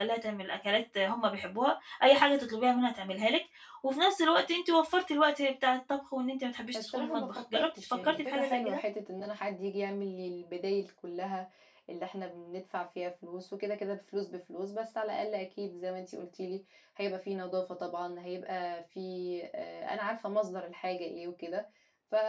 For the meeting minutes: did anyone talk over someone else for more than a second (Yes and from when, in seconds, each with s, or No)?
Yes, from 6.7 s